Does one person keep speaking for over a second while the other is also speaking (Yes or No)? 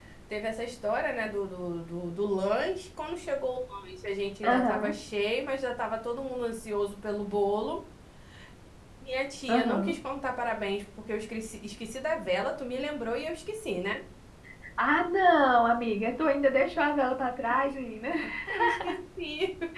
No